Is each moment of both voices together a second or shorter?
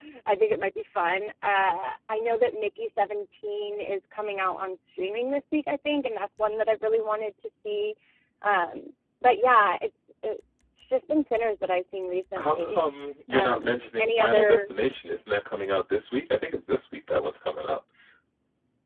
No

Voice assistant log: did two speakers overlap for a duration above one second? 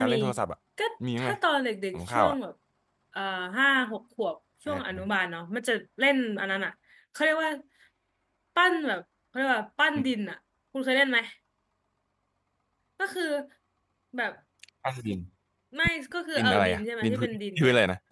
Yes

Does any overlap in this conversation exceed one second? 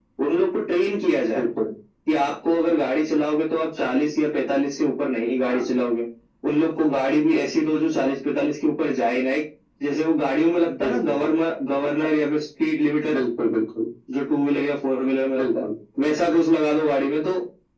No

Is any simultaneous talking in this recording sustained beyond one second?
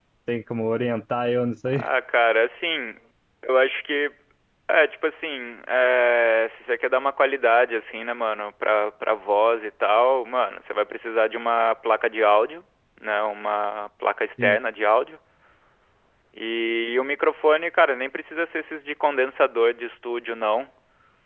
No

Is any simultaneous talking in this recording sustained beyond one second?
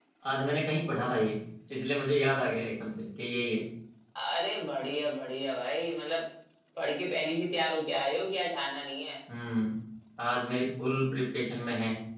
No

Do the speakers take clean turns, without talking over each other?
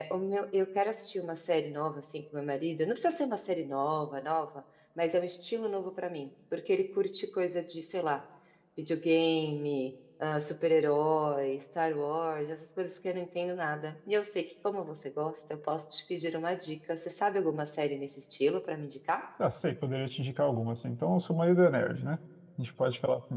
Yes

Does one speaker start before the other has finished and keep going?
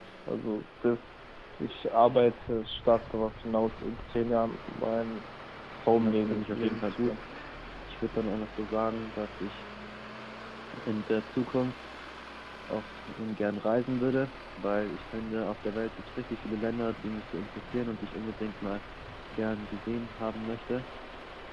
Yes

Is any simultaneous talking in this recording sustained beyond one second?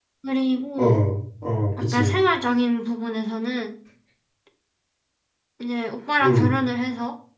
No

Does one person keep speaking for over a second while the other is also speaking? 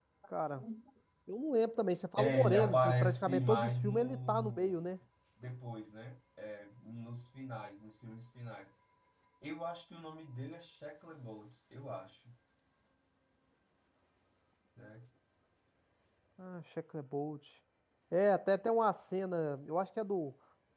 Yes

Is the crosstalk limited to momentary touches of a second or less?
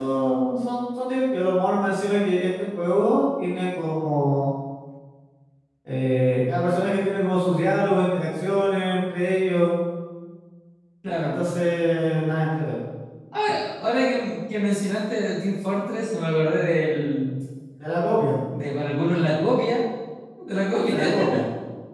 Yes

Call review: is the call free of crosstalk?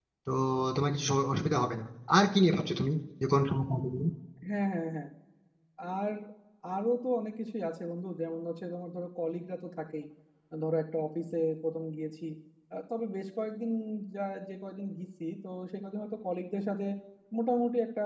Yes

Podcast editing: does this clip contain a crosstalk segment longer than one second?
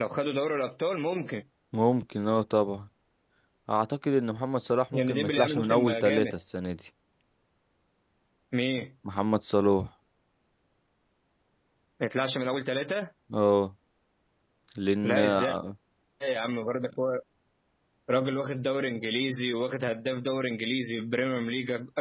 Yes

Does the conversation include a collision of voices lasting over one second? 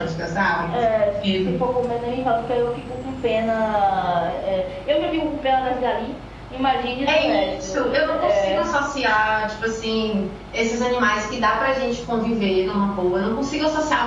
Yes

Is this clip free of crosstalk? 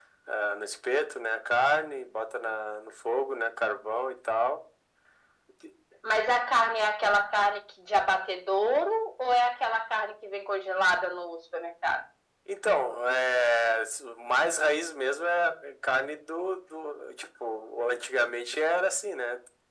Yes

